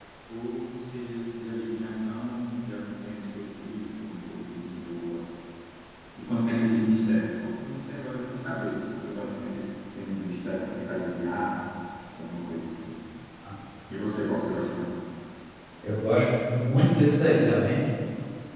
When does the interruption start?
none

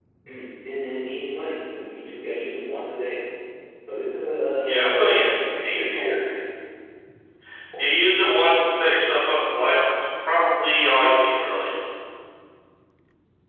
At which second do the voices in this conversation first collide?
4.6 s

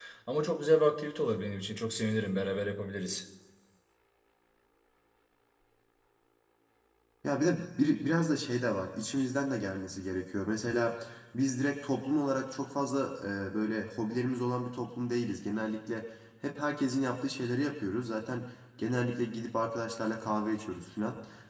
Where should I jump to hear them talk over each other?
none

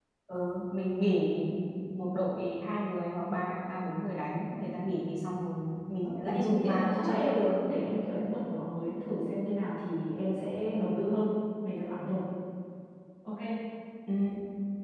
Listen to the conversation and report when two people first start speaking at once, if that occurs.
6.2 s

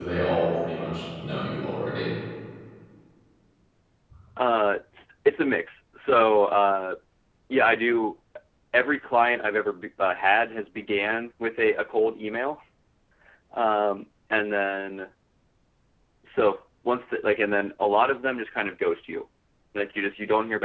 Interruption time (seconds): none

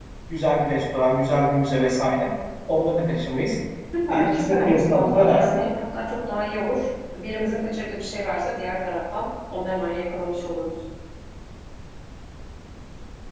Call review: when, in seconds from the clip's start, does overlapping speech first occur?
4.1 s

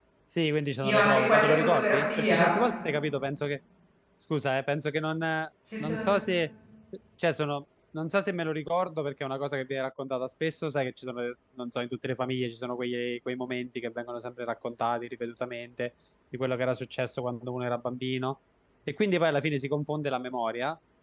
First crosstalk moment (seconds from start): 0.8 s

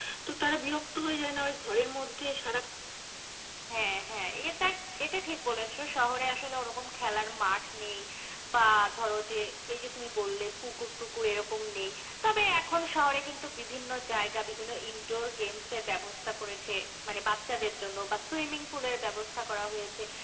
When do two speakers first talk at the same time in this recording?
none

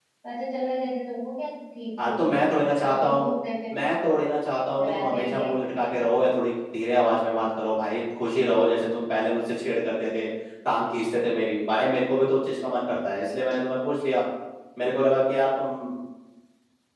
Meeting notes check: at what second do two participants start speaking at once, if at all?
2.0 s

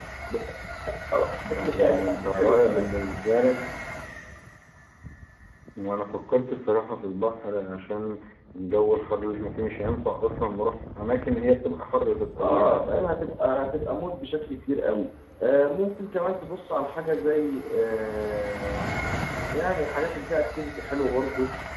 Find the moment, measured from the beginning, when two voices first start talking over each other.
1.6 s

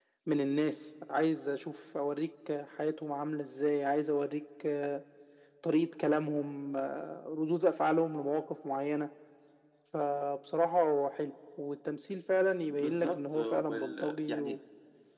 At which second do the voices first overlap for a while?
12.7 s

